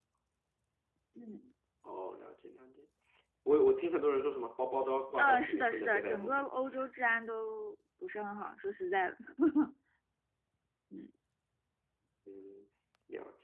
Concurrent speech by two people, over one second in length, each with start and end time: 5.2-6.5

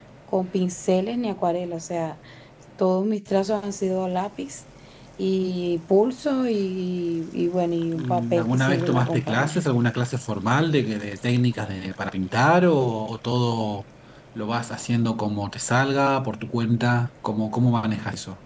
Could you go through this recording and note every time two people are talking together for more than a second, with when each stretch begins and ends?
8.0-9.6

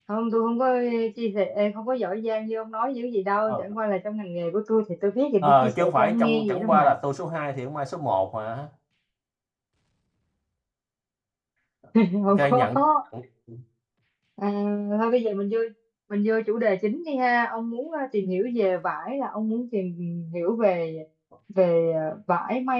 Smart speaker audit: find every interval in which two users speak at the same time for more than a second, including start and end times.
5.4-6.9

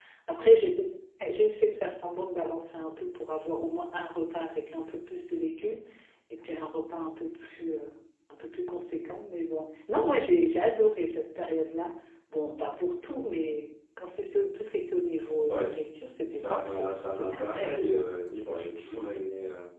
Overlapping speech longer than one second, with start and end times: 16.3-17.8

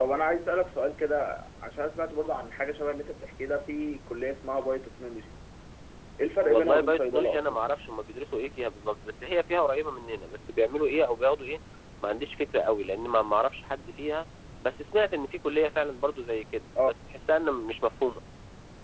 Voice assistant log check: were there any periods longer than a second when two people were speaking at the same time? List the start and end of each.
6.4-7.6

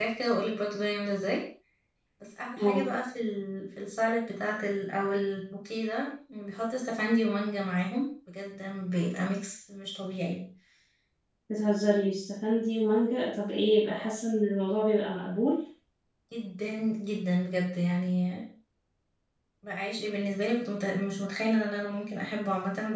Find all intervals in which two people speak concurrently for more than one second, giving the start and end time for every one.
none

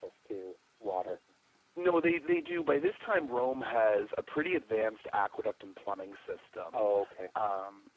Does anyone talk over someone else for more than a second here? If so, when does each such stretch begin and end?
none

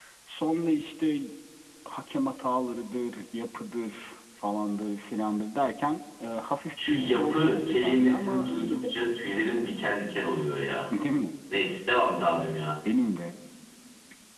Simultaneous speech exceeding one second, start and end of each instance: 6.9-8.8

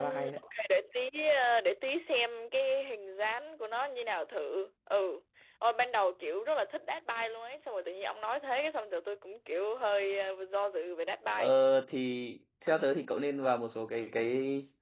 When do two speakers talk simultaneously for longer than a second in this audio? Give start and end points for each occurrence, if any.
none

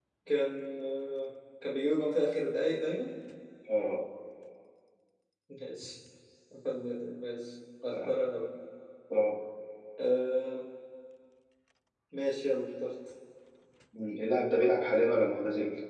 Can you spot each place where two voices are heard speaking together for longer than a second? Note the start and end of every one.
none

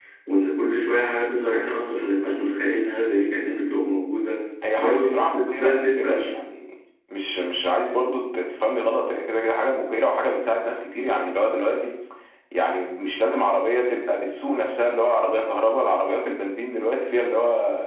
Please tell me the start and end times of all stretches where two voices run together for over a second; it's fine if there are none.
4.8-6.3

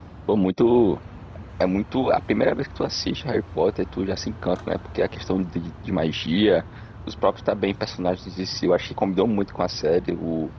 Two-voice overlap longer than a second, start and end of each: none

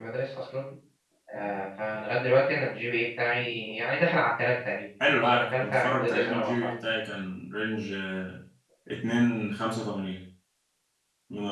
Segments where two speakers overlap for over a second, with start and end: 5.1-6.7

